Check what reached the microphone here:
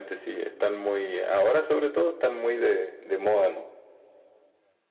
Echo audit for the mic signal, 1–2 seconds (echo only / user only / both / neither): echo only